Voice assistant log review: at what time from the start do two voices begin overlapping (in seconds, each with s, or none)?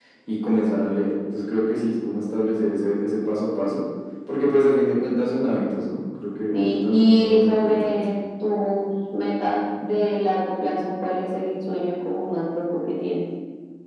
6.5 s